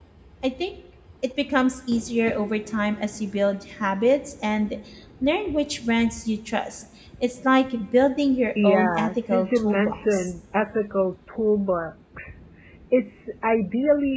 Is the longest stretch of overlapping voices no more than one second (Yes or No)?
No